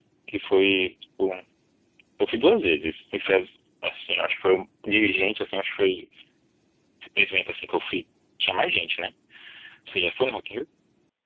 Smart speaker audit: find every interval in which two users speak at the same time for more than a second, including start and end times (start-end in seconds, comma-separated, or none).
none